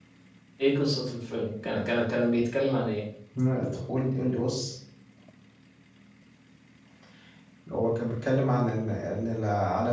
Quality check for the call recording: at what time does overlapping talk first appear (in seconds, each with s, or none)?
none